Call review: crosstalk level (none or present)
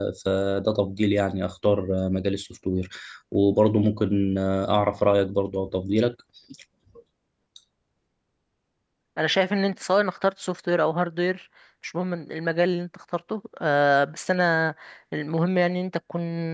none